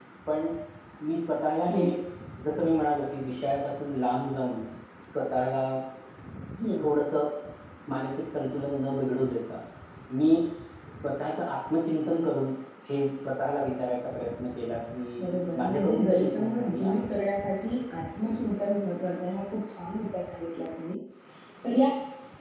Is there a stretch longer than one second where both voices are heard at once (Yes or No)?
Yes